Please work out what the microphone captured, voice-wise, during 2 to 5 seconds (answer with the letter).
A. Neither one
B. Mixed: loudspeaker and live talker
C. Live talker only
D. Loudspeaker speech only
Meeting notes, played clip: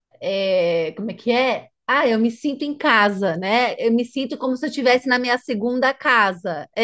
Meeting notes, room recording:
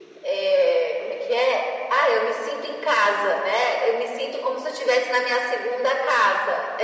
D